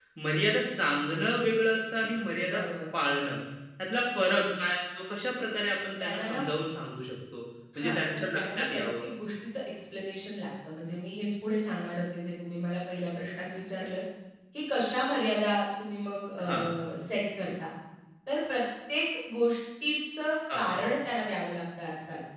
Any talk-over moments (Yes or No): Yes